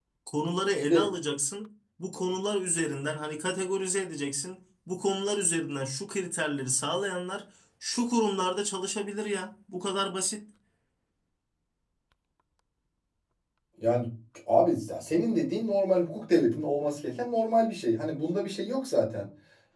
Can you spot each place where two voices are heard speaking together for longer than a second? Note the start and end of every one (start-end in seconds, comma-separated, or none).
none